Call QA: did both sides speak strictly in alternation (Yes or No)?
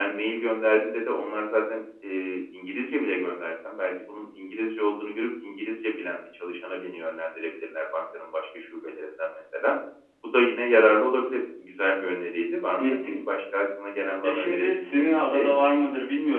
No